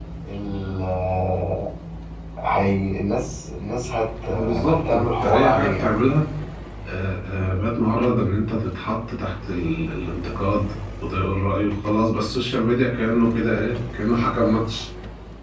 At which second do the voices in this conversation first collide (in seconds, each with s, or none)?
4.3 s